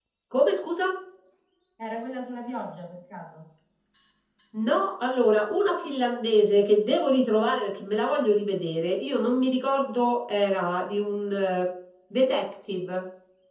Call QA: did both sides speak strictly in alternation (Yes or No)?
Yes